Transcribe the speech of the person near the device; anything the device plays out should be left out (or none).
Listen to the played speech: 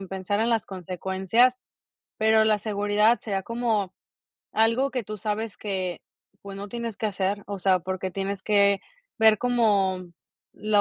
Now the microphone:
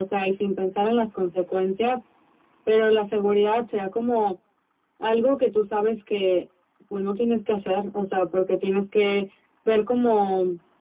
none